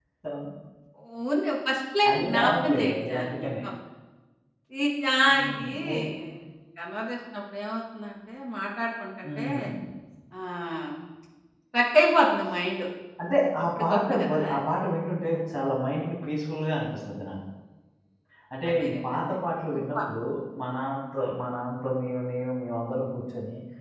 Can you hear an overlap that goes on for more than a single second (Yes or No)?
Yes